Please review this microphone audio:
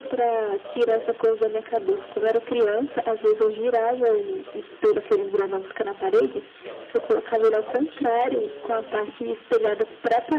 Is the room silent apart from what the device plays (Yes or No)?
No